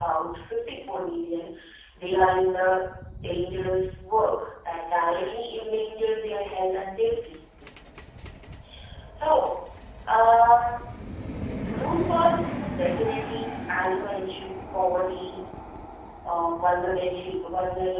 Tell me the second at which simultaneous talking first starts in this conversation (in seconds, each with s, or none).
none